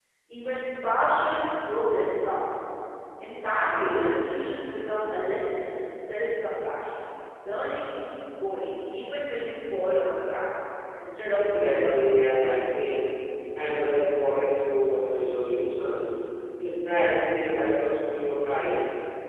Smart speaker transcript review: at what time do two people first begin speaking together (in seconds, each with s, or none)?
11.4 s